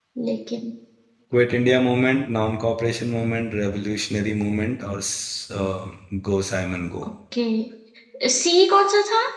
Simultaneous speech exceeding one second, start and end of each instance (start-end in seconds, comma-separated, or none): none